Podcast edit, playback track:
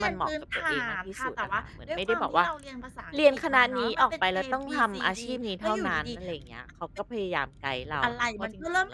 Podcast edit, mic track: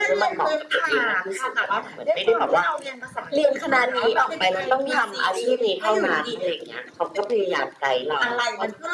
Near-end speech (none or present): none